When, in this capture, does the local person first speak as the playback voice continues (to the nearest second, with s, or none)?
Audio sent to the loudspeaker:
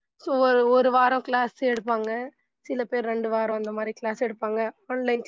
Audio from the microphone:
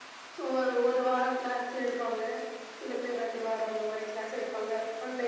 none